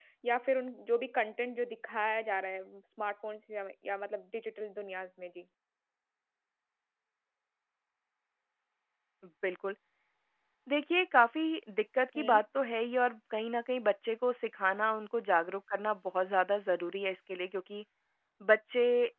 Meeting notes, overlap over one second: none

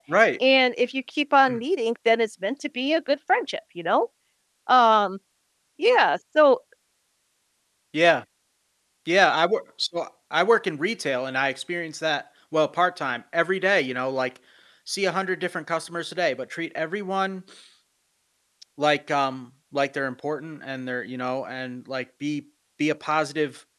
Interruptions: none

